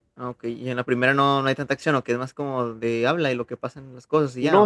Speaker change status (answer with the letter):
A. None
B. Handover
B